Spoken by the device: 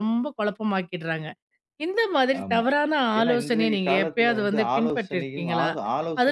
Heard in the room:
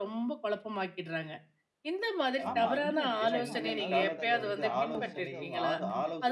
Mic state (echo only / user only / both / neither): both